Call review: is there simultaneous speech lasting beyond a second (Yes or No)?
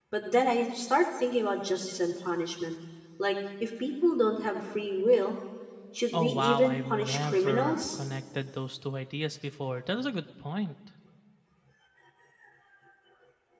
Yes